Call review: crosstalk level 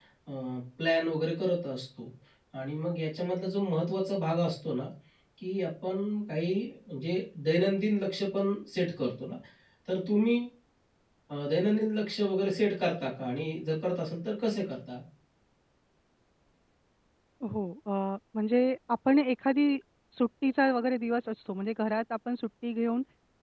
none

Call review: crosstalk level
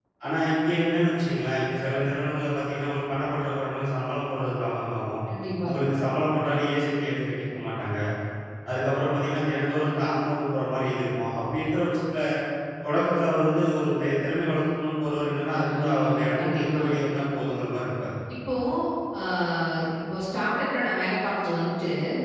present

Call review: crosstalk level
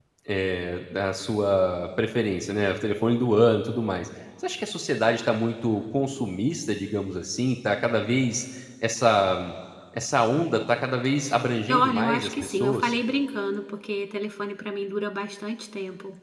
present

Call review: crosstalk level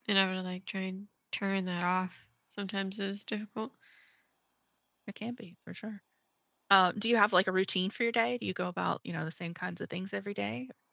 none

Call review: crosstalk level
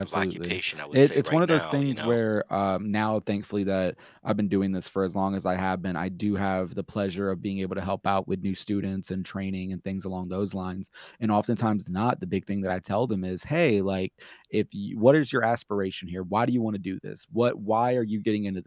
present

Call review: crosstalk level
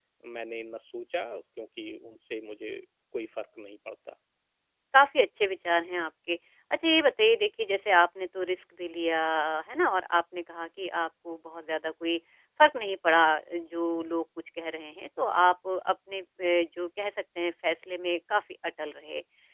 none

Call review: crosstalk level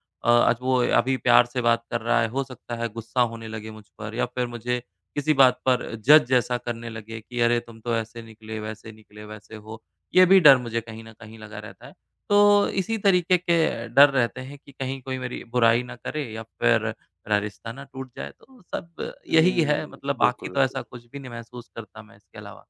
present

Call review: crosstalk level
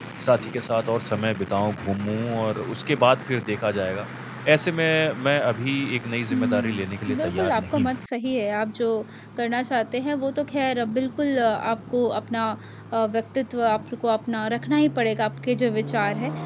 present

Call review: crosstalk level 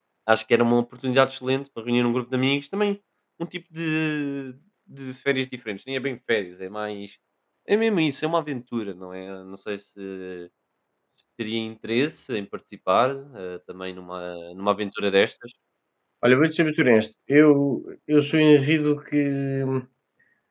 none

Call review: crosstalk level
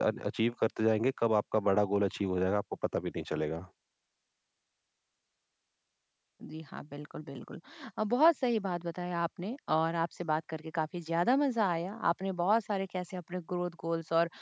none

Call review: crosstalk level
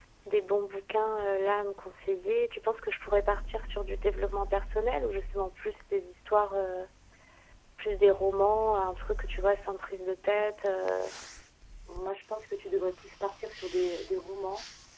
none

